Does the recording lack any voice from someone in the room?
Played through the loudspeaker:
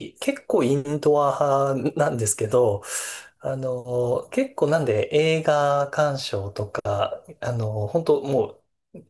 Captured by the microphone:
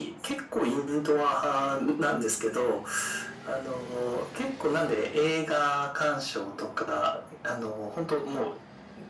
Yes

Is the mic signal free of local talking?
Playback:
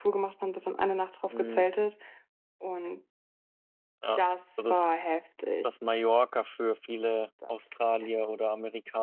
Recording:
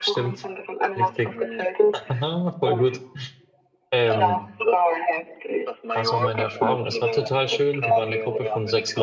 No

